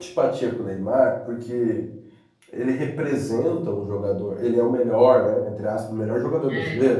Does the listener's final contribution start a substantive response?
No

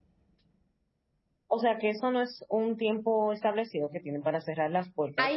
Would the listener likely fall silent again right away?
No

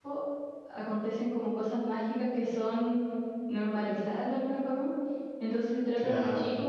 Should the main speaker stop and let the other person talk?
No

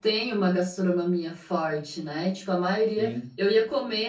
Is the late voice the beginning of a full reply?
No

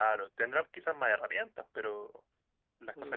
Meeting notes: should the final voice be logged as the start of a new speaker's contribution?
Yes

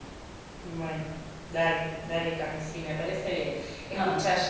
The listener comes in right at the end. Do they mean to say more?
No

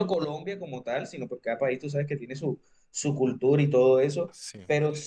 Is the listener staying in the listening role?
Yes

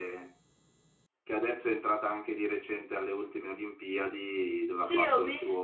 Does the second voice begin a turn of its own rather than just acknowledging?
Yes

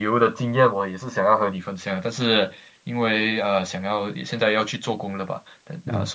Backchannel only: Yes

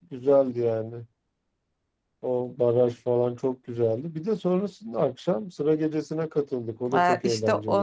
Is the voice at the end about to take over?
Yes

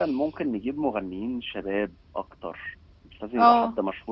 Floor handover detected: No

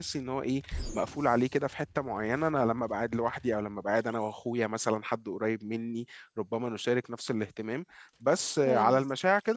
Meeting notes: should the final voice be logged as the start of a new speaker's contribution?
No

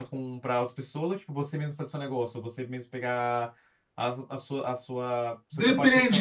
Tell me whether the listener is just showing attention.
No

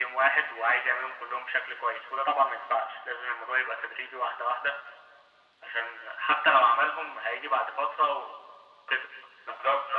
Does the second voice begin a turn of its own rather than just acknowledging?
Yes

